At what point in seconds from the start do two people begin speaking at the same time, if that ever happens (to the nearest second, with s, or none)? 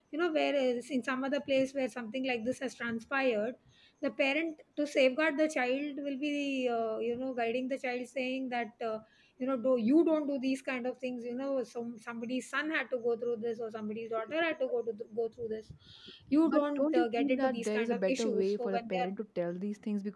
16 s